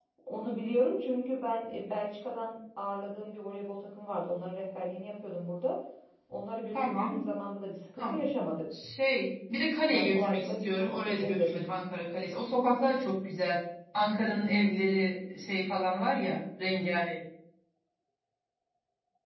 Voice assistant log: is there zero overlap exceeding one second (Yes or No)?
No